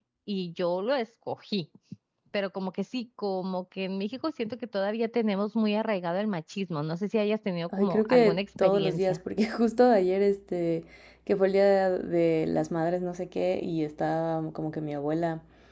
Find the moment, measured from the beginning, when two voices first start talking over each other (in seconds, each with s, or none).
7.7 s